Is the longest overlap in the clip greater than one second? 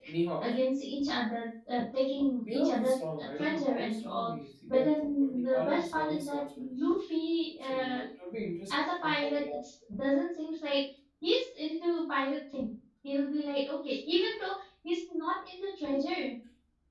Yes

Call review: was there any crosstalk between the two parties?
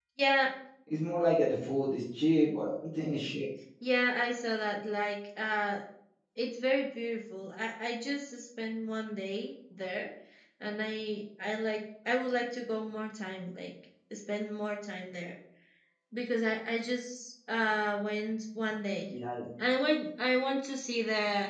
No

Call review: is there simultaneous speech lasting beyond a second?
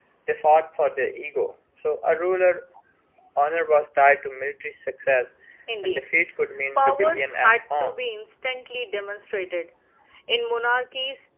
Yes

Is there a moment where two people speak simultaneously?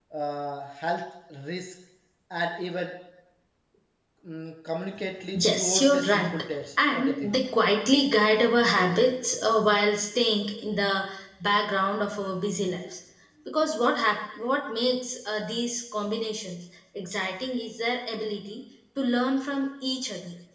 Yes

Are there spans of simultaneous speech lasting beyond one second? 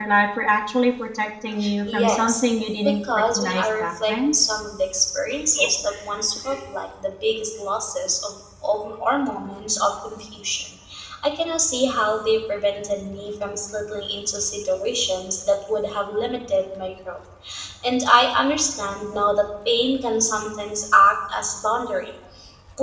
Yes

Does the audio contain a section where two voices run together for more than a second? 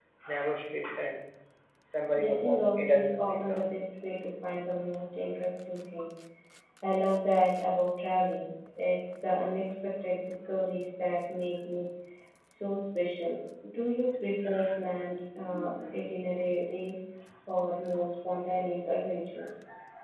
Yes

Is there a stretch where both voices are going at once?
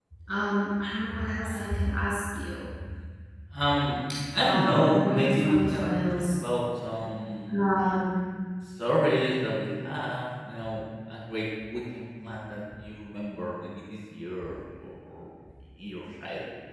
Yes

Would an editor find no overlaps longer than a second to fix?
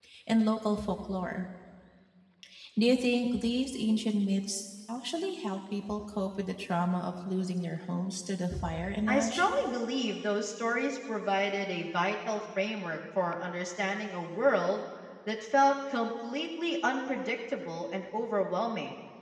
Yes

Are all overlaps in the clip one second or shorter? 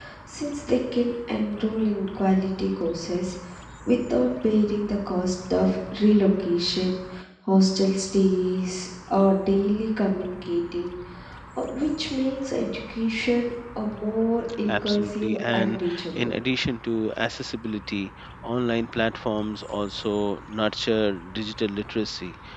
No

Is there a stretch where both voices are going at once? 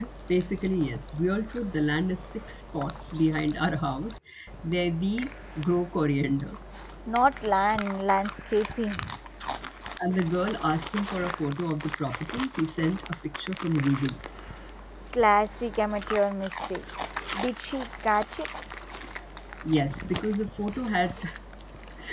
No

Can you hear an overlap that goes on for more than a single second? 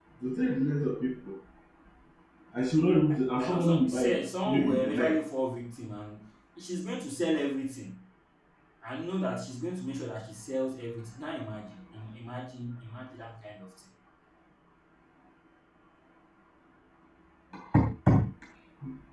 Yes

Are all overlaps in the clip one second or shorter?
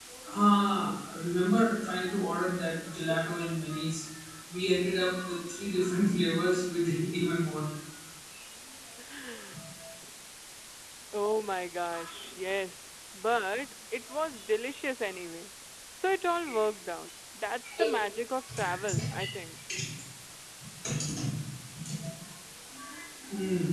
Yes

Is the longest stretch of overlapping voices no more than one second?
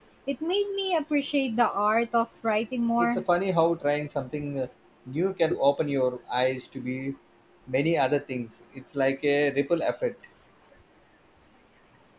Yes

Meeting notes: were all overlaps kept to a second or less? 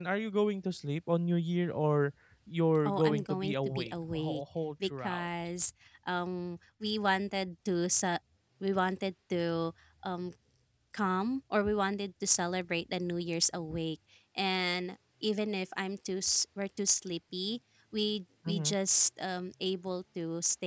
No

